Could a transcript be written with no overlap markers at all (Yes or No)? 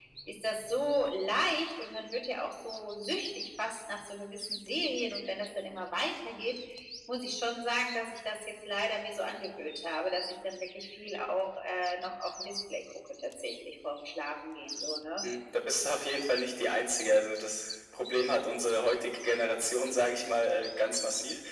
Yes